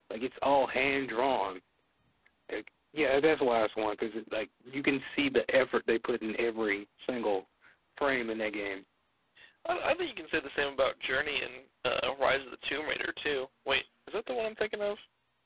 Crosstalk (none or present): none